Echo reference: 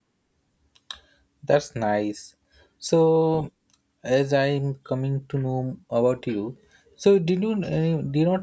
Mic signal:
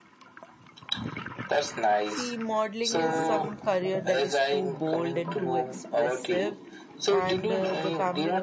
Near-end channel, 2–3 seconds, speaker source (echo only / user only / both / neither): both